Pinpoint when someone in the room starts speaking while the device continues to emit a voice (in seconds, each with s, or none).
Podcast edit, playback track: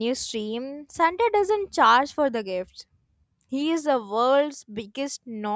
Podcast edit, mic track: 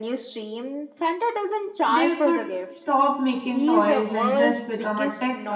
1.8 s